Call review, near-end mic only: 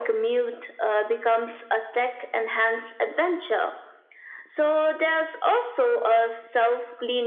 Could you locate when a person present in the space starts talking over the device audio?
none

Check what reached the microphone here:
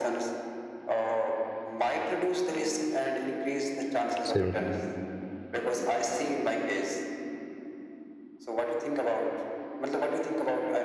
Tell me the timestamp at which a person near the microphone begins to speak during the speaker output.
4.2 s

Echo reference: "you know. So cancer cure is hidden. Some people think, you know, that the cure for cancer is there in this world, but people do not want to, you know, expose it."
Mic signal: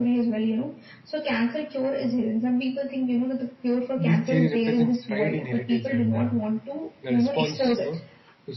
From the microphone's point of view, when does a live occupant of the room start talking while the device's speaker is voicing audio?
4.0 s

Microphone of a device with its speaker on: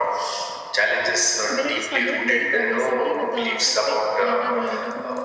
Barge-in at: 1.5 s

